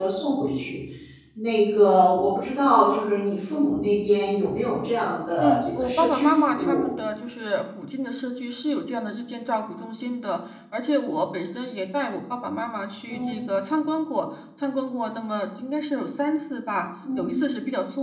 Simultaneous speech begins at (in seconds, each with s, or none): 5.4 s